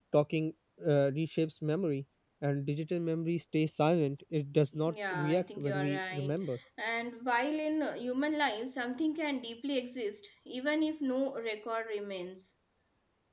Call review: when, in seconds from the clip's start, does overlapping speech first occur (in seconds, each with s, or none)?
4.9 s